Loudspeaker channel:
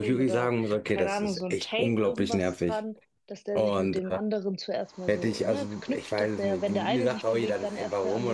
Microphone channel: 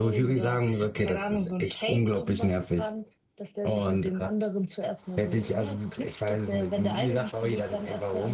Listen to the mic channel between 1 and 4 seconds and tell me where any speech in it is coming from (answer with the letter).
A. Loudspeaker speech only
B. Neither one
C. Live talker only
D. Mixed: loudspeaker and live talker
A